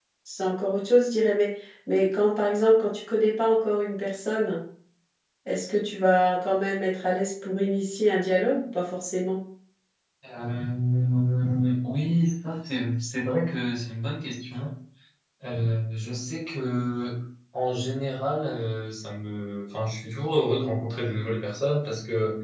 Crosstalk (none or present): none